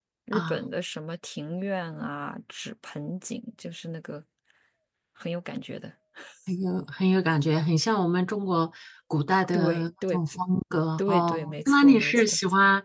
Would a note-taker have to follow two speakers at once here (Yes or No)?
Yes